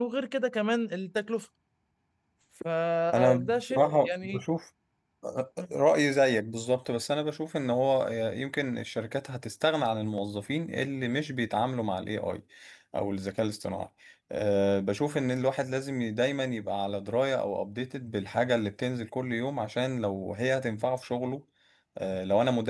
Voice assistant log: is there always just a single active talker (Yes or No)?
No